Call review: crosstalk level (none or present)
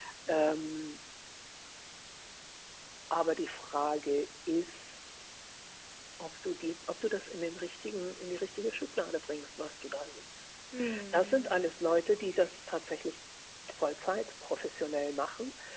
present